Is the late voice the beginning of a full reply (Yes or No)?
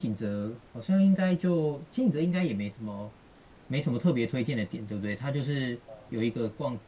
No